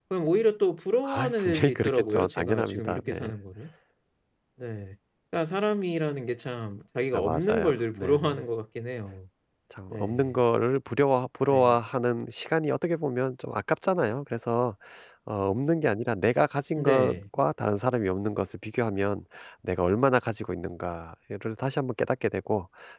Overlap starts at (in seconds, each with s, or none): 1.0 s